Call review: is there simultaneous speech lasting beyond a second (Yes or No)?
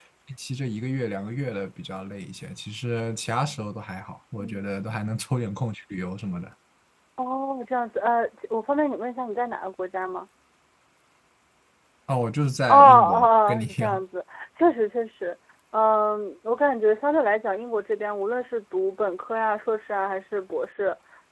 Yes